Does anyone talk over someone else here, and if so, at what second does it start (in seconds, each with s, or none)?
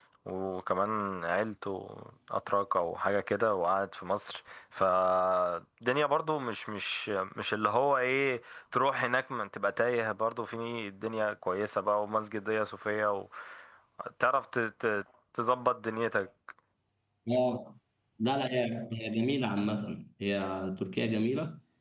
none